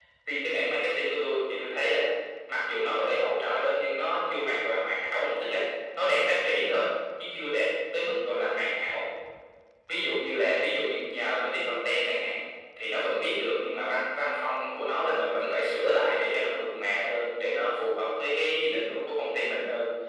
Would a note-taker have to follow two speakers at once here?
No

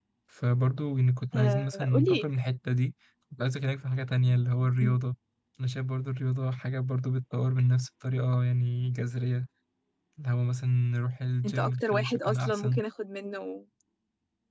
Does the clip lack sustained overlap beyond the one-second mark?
No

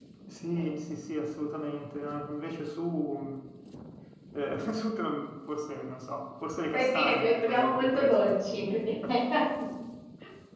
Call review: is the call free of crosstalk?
No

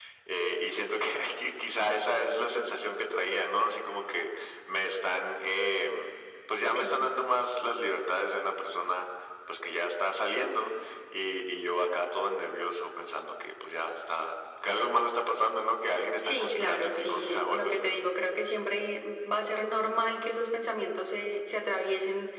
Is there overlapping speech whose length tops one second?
Yes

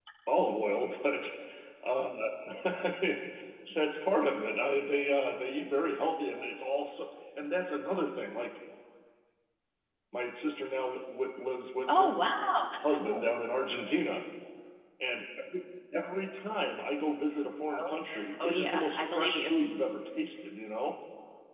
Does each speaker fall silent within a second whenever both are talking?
No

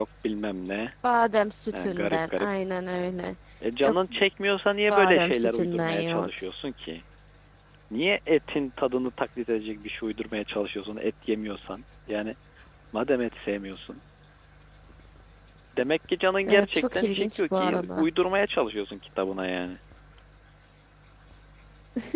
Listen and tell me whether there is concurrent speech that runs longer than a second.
Yes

